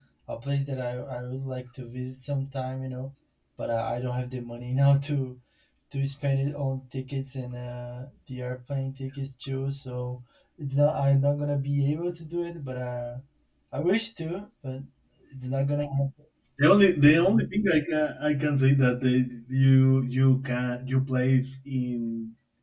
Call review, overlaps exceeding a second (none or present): none